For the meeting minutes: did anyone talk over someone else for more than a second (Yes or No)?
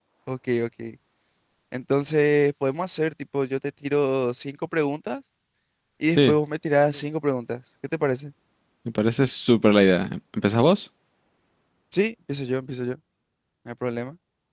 No